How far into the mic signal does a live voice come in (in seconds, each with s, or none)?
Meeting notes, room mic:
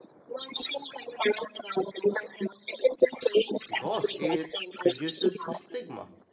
3.7 s